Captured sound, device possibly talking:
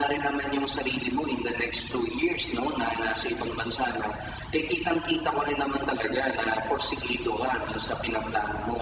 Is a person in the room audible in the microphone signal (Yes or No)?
No